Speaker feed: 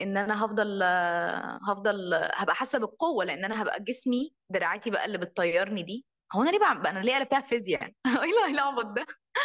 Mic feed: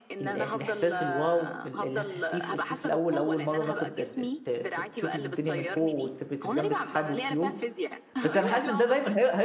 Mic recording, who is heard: both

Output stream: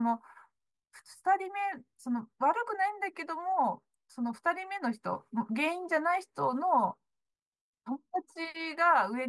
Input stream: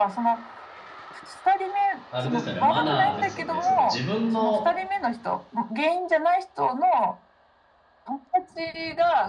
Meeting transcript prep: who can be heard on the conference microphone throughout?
both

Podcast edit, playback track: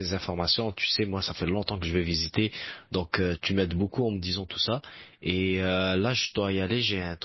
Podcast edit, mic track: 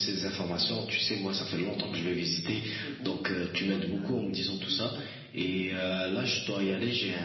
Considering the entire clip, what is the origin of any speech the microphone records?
both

